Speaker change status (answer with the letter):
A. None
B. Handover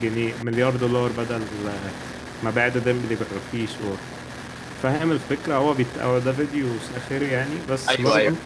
A